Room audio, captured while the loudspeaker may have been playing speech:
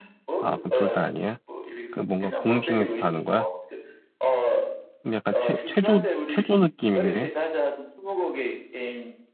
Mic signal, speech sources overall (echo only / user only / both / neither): both